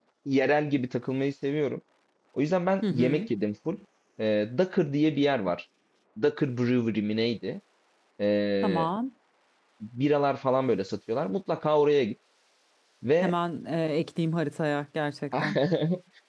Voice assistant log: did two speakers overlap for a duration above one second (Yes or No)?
No